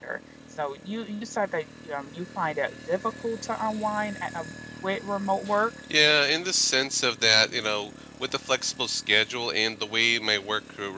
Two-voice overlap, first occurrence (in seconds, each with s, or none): none